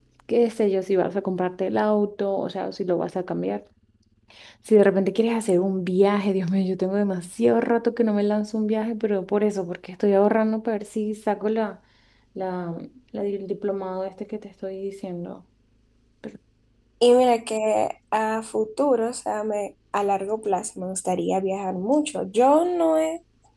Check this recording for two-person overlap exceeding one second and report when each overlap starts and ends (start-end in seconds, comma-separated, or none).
none